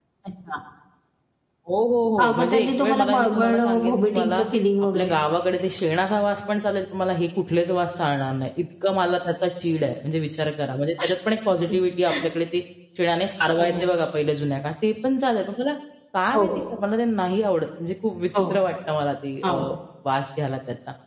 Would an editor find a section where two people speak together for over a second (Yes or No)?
Yes